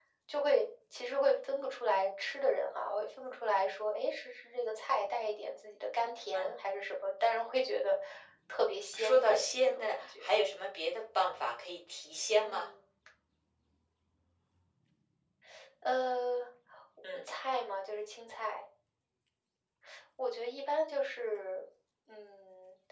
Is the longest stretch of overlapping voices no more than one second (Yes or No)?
No